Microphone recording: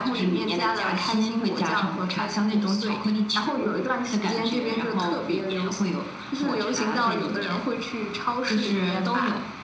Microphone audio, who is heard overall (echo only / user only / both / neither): echo only